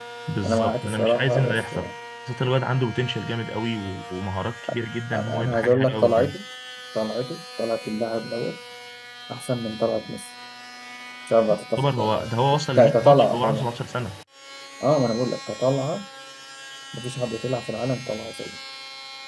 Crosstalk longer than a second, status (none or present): present